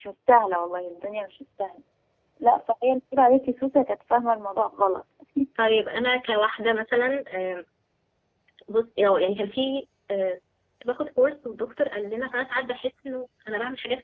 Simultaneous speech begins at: none

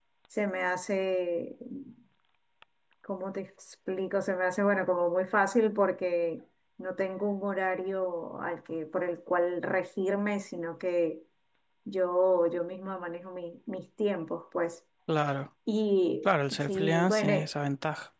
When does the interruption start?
16.2 s

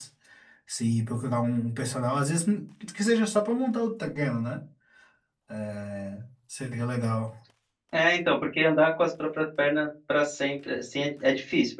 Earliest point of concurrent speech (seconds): none

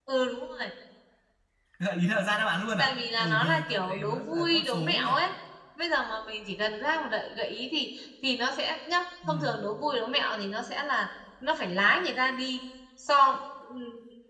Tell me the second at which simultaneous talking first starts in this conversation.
2.8 s

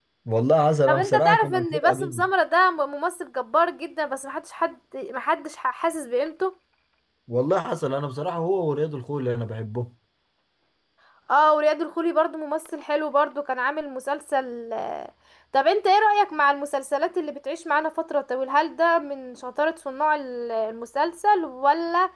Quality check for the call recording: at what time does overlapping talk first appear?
0.9 s

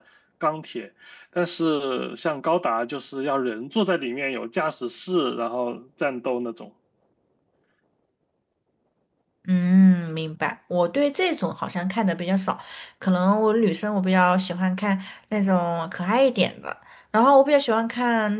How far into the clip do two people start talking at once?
none

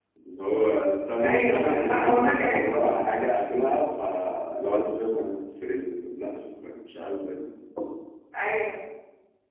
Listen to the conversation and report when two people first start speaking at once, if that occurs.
1.2 s

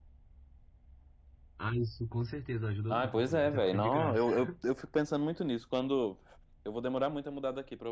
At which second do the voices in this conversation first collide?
2.9 s

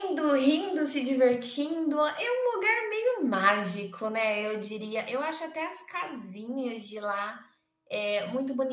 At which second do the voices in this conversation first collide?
none

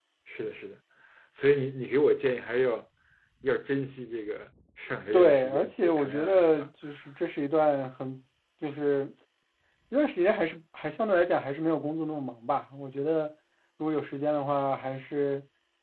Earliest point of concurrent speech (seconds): 5.1 s

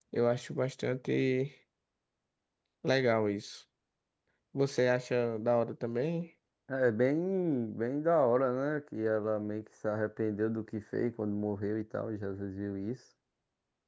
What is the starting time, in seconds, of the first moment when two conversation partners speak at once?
none

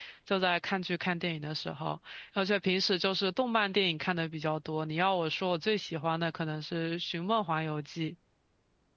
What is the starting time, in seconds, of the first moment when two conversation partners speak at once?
none

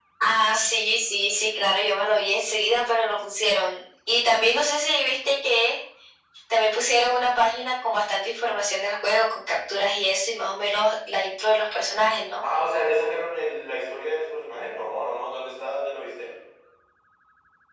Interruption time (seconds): none

